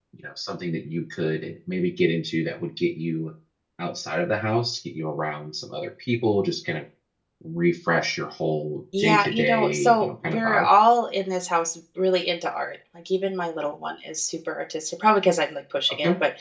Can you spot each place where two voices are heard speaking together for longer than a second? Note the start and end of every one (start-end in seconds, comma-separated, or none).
9.0-10.7